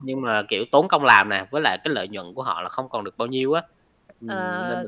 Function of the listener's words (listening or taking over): taking over